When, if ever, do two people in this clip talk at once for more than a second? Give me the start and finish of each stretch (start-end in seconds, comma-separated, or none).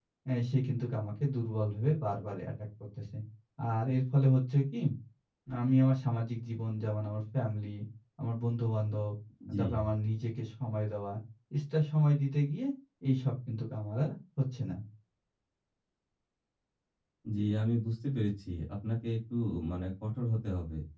none